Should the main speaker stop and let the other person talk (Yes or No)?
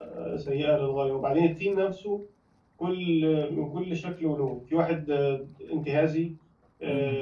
No